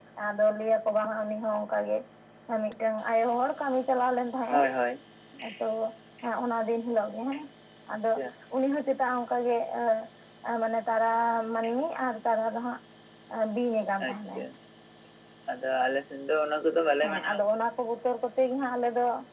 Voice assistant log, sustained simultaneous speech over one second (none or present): none